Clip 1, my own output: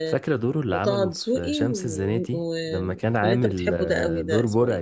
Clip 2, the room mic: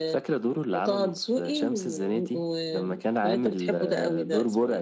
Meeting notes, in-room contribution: none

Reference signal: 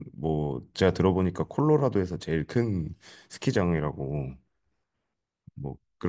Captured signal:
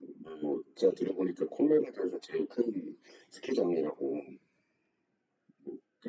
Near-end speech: none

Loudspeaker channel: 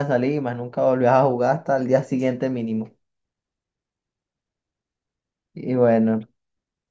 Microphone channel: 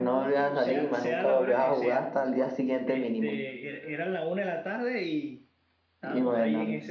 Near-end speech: present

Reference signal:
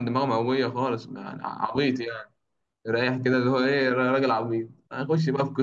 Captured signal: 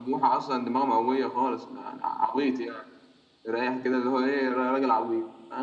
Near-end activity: none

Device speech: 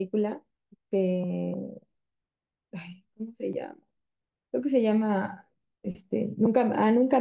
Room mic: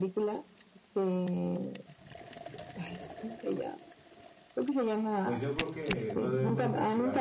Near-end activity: present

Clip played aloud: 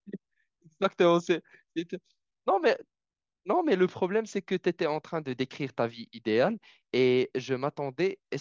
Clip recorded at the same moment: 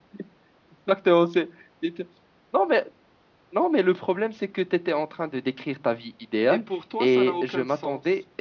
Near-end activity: present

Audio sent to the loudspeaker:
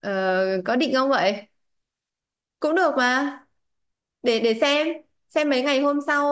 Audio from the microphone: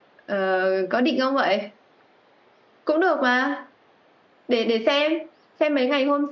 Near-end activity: none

